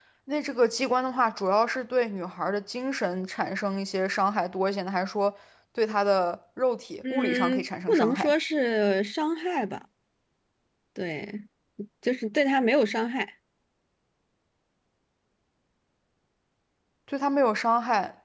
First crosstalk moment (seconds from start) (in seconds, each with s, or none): 7.0 s